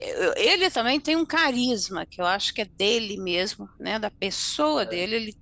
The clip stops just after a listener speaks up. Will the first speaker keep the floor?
Yes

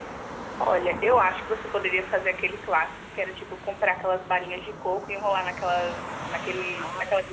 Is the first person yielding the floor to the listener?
Yes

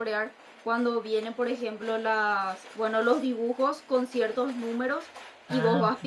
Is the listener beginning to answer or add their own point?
No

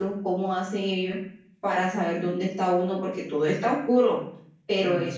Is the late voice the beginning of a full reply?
No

